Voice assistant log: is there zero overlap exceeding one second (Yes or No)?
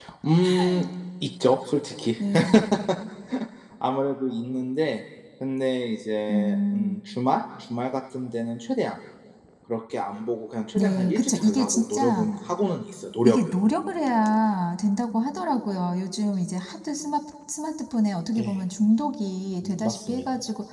No